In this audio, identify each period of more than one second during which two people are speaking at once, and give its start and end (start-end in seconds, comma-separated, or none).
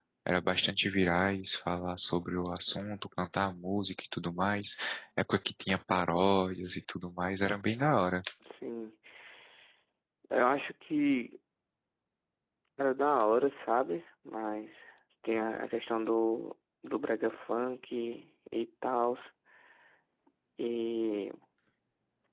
none